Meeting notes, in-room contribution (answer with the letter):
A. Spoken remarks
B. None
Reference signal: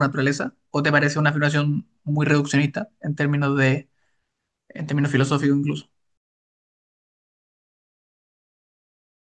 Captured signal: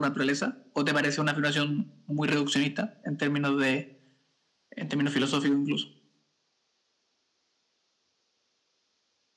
B